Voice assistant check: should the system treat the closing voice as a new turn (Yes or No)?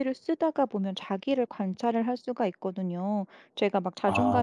No